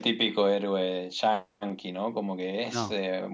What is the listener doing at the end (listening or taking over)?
listening